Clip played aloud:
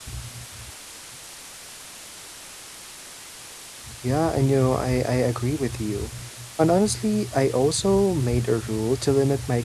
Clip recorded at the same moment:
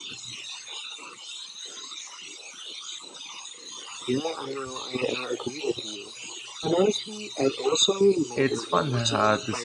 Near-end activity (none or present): present